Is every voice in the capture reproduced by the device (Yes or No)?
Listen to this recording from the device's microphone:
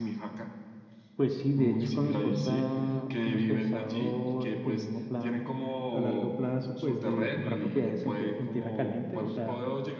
Yes